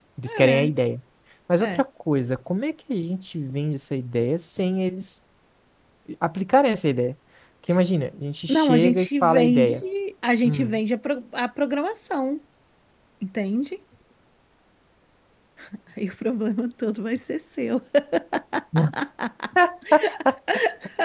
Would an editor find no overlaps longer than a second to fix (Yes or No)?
No